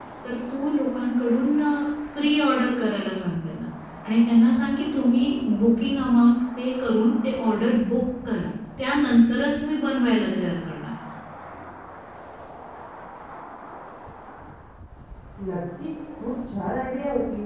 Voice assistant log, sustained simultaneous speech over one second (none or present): none